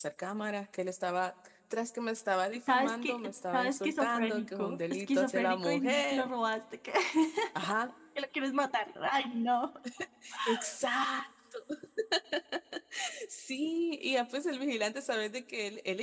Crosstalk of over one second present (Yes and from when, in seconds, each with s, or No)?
Yes, from 2.7 s